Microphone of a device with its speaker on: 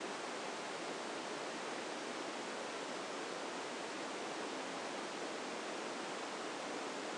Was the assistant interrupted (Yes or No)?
No